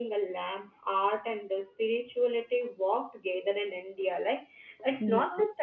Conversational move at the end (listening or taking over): listening